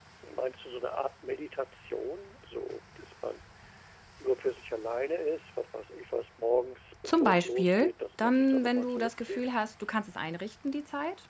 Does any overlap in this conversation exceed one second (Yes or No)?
Yes